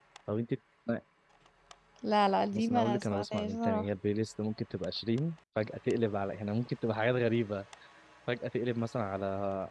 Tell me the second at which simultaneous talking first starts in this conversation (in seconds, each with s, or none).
2.5 s